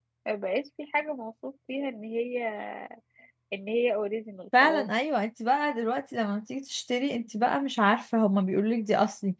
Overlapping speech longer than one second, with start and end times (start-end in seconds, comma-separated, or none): none